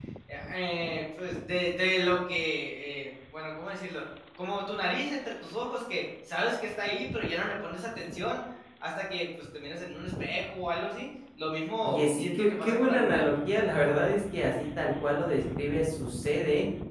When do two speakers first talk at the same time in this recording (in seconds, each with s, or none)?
11.8 s